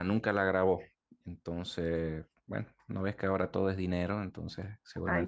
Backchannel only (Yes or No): Yes